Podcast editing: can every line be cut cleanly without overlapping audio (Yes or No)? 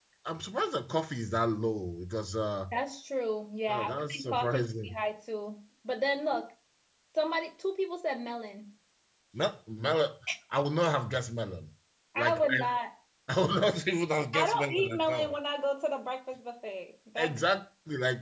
No